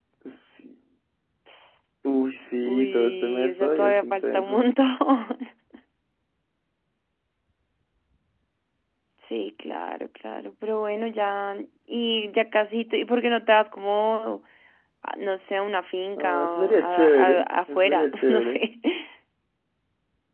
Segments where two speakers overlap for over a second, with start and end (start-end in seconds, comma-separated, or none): 2.7-4.6, 16.2-18.6